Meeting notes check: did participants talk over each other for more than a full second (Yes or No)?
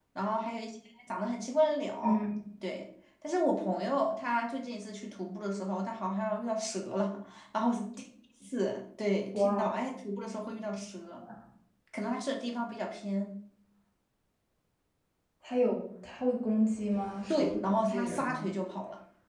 Yes